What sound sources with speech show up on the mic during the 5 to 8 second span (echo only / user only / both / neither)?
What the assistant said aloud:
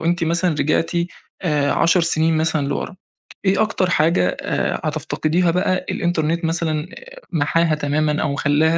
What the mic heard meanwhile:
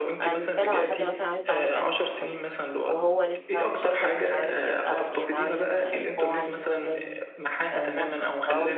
both